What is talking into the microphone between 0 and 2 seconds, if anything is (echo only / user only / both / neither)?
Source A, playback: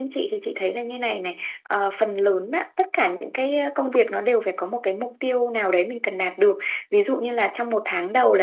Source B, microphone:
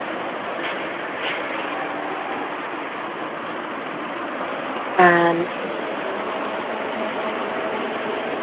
neither